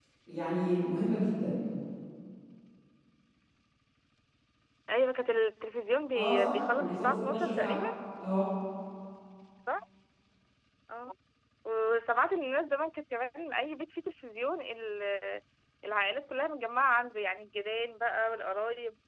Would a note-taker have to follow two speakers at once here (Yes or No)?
Yes